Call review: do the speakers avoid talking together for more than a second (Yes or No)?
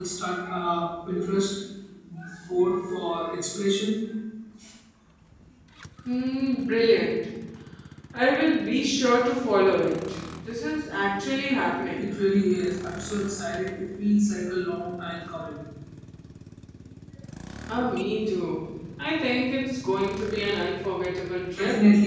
Yes